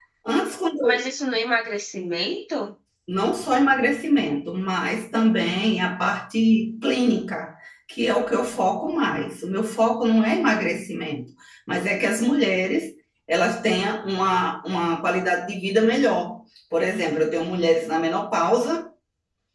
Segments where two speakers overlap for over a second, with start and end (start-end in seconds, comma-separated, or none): none